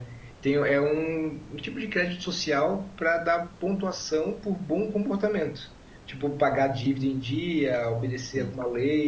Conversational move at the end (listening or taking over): listening